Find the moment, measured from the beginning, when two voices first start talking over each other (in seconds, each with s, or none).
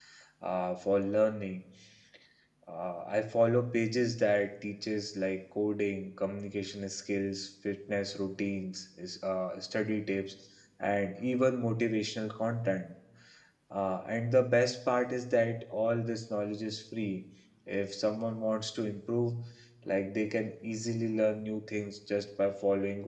none